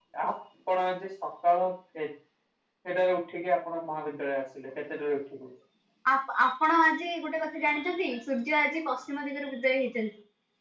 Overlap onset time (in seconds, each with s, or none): none